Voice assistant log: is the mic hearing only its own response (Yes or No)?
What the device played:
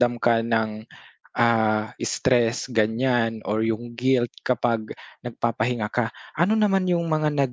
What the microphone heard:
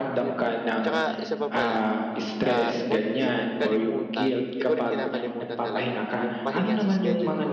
No